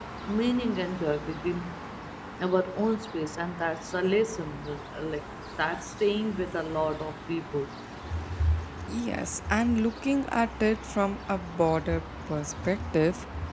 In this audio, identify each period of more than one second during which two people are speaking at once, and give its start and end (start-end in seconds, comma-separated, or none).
none